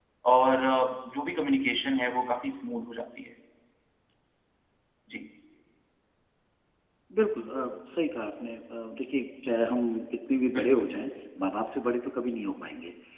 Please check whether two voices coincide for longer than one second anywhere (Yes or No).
No